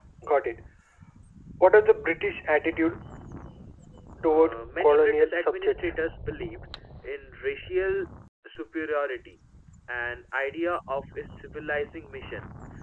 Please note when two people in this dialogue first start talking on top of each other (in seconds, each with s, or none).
4.2 s